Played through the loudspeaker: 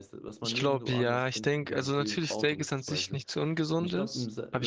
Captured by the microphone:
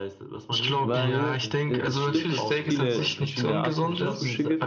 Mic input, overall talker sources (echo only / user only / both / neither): both